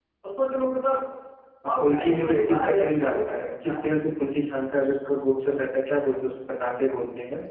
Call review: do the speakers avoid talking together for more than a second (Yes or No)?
No